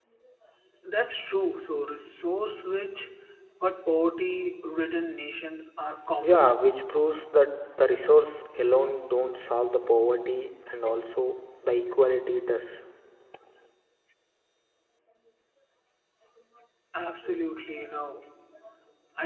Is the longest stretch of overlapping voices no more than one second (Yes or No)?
Yes